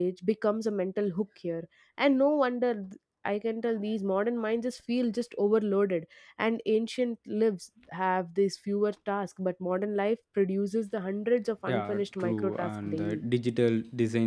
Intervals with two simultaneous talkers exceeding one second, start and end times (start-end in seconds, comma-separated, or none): 11.7-13.2